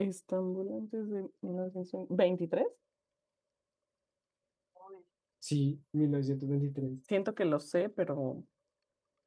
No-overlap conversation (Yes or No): Yes